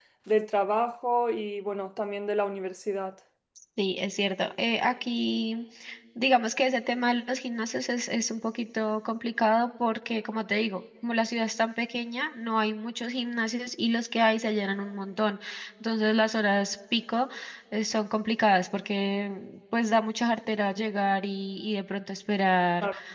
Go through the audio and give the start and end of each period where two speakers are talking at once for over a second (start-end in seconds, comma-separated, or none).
none